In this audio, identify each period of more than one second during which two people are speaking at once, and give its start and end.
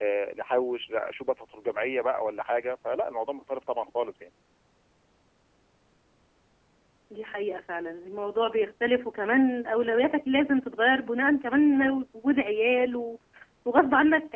none

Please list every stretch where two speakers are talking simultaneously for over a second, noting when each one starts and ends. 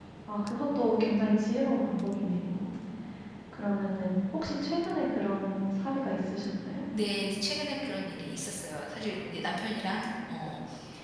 none

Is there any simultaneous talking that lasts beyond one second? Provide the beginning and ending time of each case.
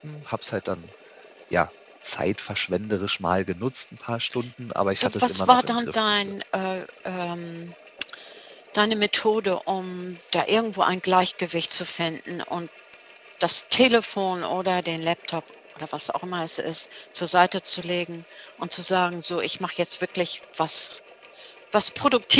5.0-6.3

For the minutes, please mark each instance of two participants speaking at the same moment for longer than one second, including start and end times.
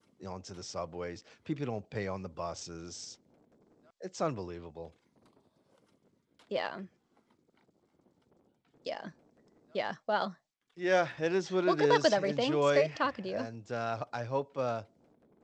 11.7-13.5

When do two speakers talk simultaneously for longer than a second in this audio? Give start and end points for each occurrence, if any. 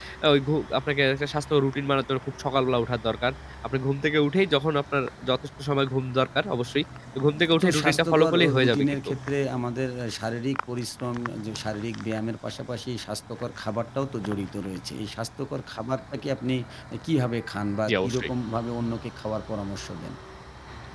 7.6-8.8

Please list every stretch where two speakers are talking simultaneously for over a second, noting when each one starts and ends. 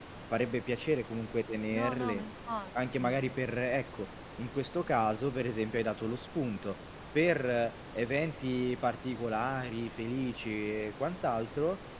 none

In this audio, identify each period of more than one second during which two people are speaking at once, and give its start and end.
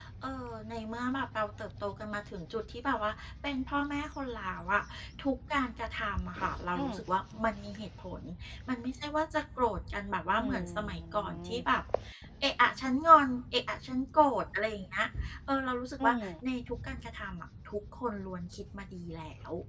10.4-11.6

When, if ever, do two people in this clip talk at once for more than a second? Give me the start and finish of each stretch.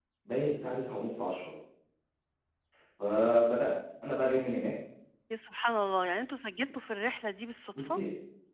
none

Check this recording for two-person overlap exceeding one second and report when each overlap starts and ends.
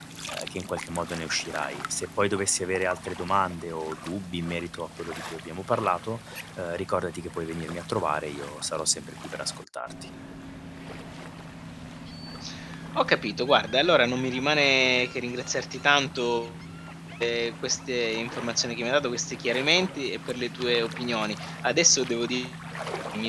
none

